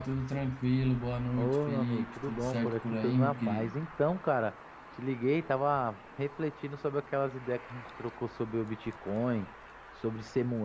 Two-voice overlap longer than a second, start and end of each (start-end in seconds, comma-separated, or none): 1.4-3.7